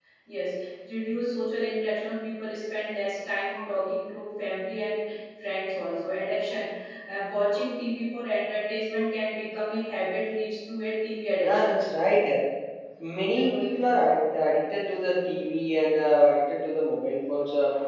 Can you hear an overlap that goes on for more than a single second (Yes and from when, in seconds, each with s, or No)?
No